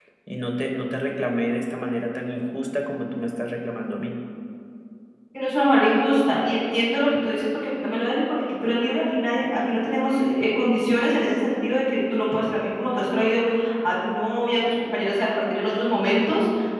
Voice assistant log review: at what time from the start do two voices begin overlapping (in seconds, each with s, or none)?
none